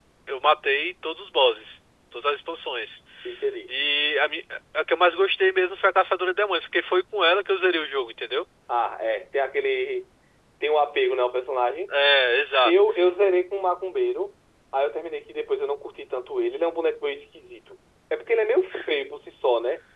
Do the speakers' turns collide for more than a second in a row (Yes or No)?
No